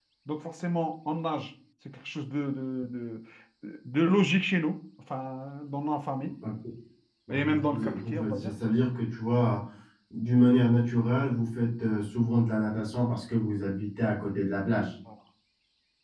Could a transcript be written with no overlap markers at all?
No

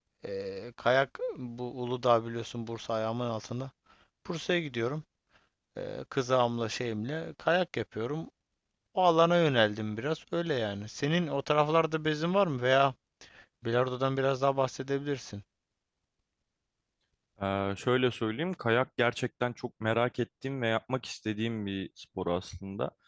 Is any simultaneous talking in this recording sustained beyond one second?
No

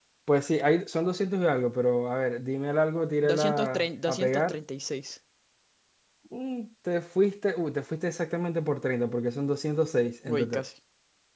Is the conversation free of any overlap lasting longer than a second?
No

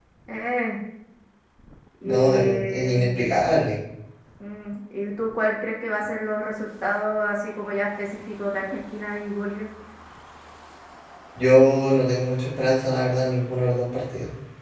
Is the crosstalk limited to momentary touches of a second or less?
No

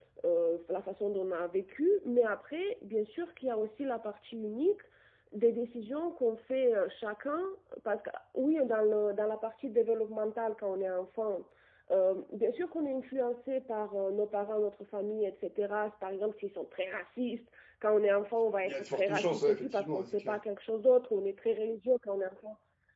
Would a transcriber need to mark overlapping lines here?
Yes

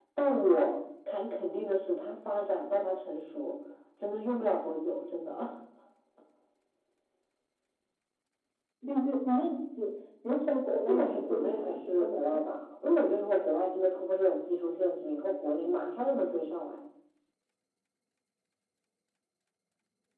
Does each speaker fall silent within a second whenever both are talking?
No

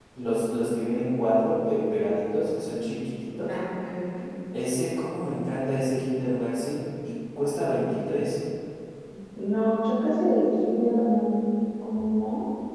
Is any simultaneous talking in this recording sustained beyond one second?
No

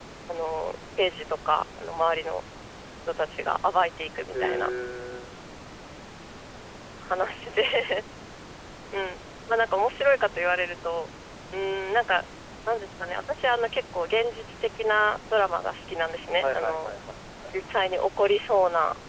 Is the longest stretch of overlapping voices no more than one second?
Yes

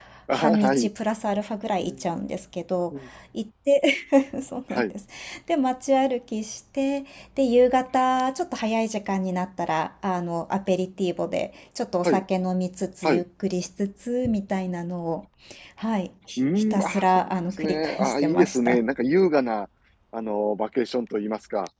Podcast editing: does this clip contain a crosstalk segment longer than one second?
Yes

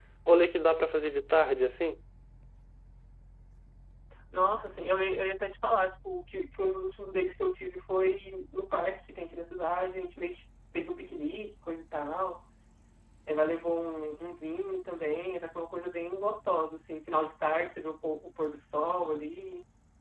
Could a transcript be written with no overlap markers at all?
Yes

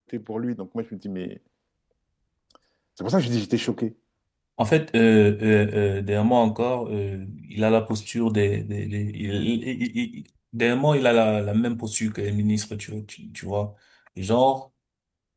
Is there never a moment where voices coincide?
Yes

